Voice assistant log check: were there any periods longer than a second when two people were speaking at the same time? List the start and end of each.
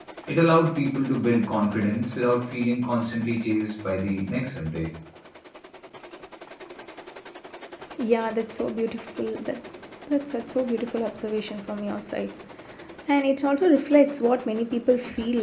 none

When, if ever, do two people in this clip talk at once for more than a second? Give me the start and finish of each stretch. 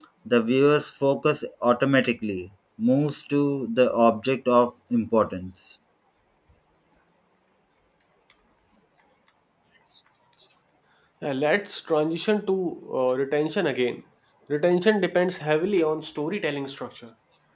none

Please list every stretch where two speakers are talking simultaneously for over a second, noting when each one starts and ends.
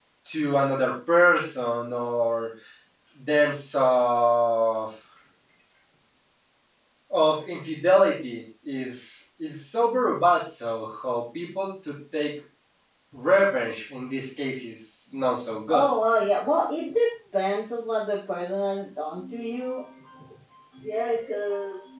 none

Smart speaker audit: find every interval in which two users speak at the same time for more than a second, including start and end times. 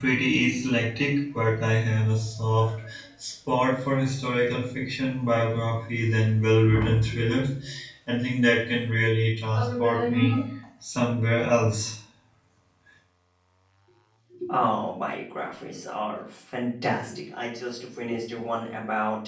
none

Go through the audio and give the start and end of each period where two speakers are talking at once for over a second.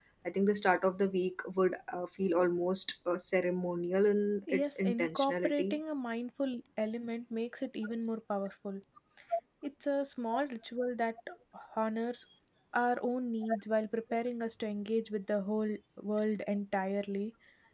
4.5-5.7

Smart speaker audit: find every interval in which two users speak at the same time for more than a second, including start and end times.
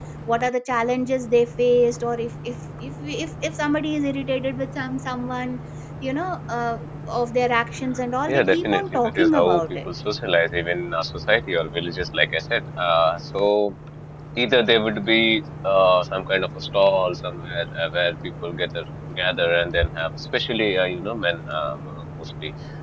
8.3-9.9

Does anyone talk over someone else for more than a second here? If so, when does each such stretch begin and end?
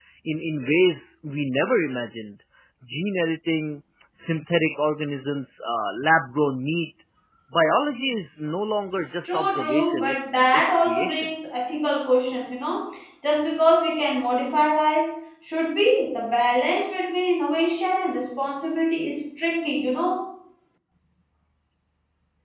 9.2-11.3

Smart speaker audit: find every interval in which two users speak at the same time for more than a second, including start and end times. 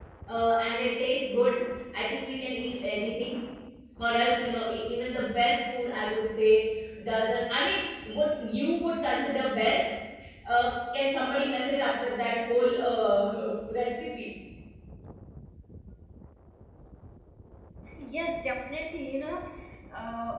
none

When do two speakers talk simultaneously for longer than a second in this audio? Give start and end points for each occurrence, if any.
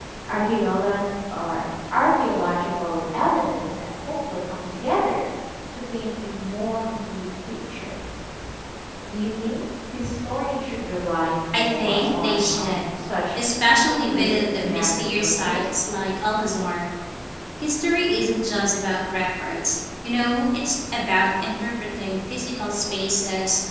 11.5-12.8, 13.8-15.6

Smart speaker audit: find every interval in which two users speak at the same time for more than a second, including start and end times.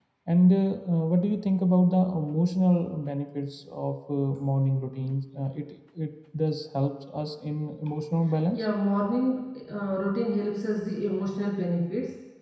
none

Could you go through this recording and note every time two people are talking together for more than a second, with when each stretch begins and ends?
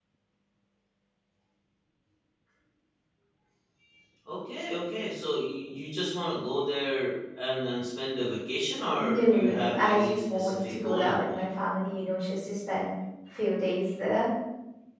9.0-11.5

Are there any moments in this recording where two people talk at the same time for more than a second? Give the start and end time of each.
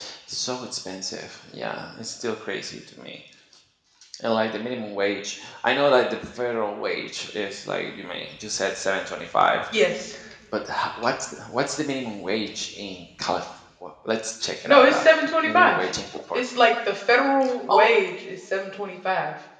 14.7-15.9

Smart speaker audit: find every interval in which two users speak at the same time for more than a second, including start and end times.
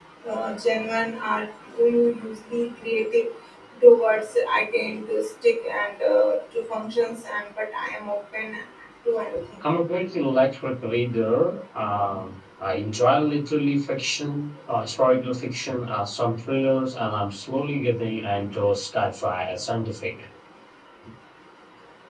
none

